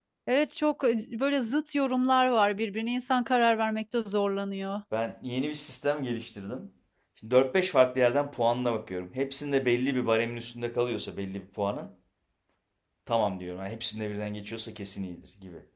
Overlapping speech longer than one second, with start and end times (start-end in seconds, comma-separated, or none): none